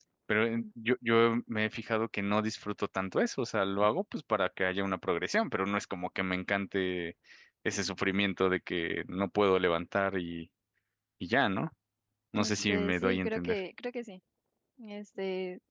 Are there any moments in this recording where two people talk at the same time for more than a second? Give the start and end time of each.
12.3-13.6

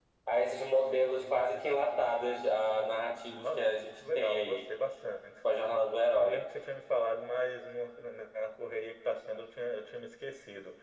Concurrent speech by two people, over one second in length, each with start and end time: 3.4-4.6

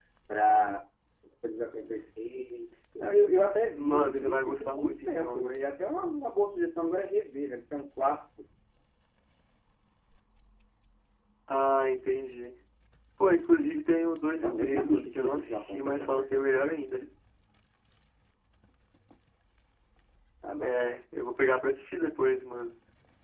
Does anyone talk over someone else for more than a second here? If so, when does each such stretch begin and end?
3.8-5.6, 14.3-16.7

